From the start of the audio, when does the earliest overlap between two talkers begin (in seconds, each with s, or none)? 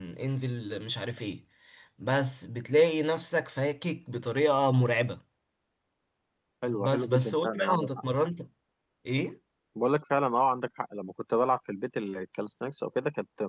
6.7 s